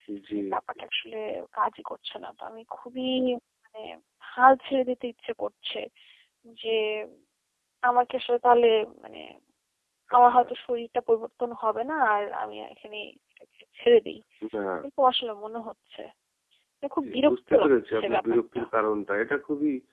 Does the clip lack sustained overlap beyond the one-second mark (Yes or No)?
No